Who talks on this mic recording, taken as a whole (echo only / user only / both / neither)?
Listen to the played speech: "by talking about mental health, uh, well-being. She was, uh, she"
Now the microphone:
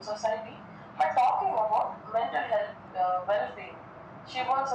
echo only